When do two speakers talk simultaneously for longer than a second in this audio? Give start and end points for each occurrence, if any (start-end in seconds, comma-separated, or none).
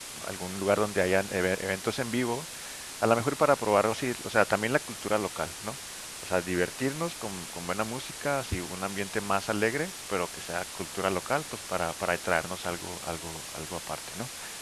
none